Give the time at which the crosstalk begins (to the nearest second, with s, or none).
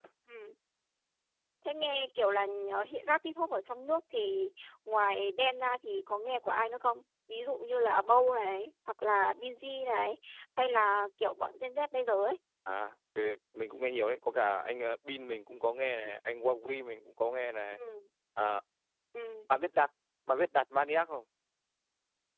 none